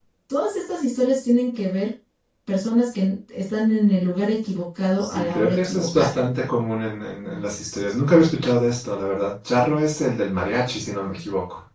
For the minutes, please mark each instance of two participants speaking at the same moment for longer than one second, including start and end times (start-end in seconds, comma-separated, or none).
5.0-6.2